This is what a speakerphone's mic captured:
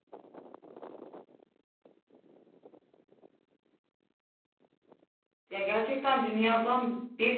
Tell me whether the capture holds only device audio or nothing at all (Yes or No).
No